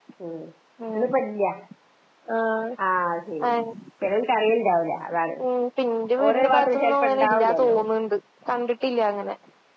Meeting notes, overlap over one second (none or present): present